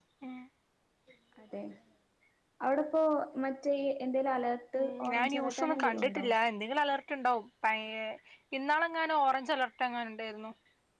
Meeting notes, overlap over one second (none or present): present